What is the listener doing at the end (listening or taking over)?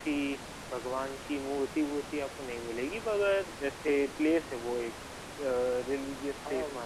taking over